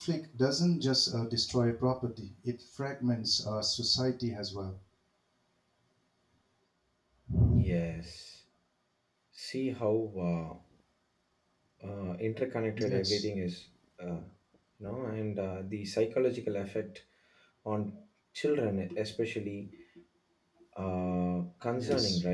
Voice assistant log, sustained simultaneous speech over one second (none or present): none